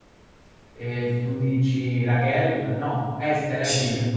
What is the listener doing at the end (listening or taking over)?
taking over